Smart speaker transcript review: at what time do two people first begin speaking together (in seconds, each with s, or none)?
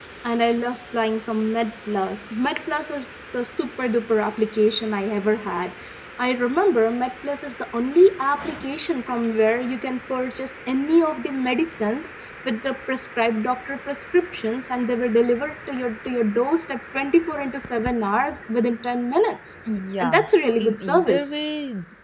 20.0 s